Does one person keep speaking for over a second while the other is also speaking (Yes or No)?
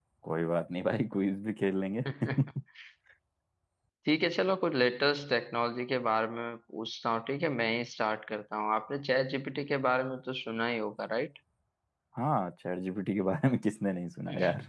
No